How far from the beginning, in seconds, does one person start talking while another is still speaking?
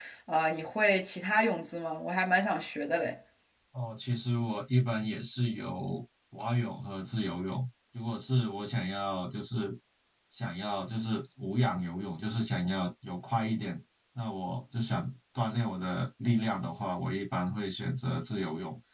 none

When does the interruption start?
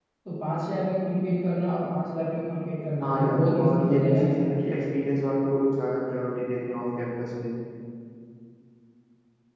3 s

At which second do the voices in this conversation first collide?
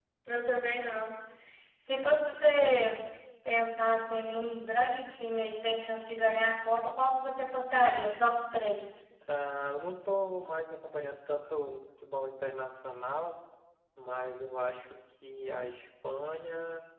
none

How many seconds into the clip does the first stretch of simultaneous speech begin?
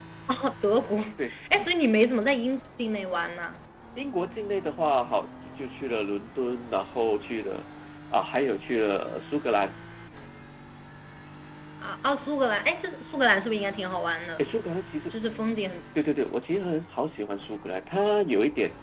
none

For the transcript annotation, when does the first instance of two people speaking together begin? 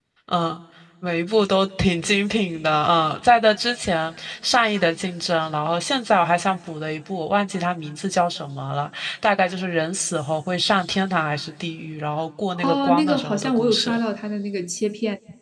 13 s

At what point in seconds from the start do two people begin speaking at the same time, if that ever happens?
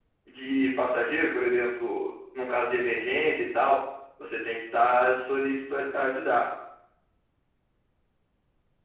none

